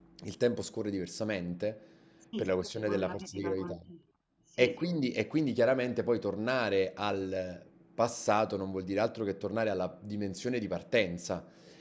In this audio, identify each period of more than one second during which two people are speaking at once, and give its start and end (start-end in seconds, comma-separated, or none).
2.4-3.8